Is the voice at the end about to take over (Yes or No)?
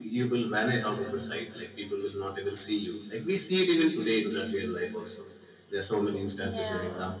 No